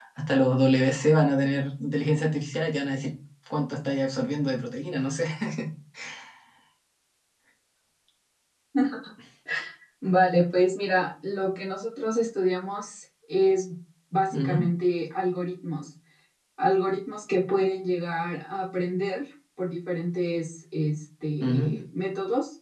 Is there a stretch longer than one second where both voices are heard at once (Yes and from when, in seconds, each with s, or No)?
No